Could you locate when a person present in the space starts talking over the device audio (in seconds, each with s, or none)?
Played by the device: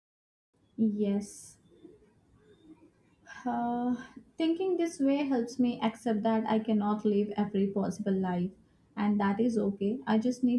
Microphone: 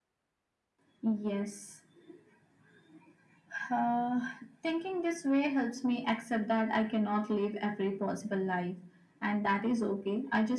none